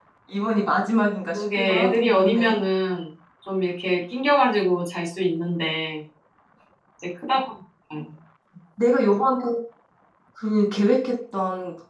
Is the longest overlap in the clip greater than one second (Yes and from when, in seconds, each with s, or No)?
Yes, from 1.3 s